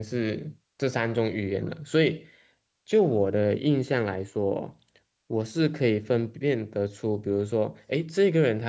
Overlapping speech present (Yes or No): No